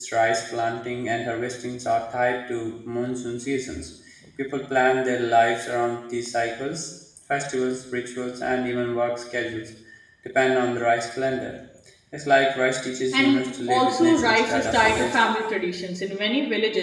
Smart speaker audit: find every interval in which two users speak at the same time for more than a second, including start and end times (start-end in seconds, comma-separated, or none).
13.1-15.3